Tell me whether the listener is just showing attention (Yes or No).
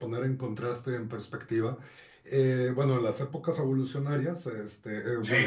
Yes